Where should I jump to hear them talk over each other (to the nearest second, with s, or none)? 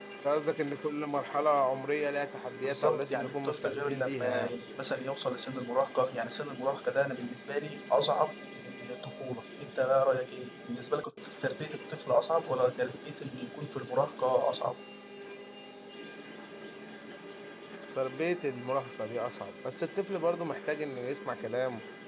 3 s